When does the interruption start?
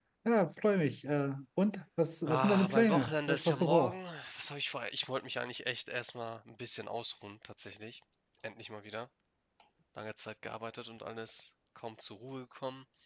2.2 s

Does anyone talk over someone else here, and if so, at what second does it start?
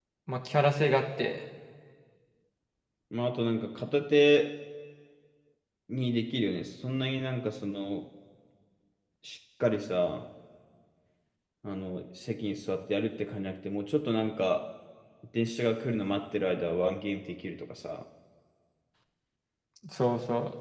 none

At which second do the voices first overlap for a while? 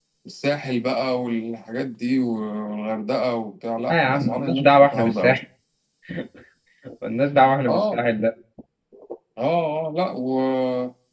3.9 s

